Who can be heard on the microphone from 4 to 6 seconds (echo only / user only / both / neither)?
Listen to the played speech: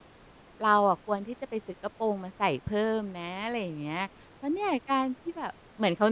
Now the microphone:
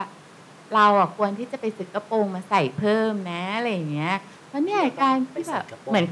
both